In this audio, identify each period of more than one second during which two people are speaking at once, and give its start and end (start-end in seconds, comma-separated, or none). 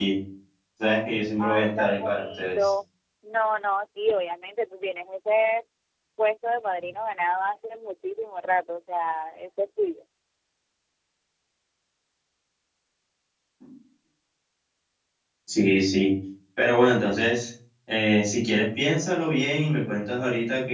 1.4-2.7